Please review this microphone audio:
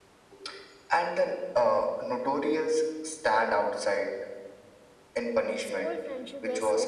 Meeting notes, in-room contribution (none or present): present